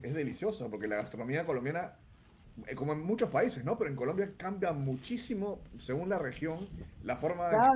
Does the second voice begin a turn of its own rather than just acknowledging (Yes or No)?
Yes